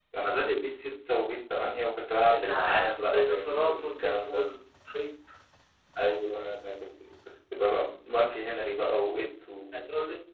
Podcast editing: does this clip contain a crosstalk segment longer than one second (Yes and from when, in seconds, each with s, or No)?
Yes, from 2.3 s